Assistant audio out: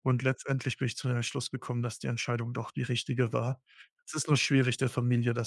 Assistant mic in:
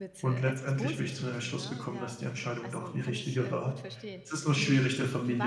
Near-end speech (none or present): present